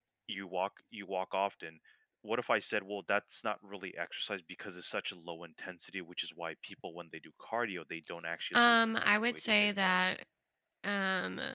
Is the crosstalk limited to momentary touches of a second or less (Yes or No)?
No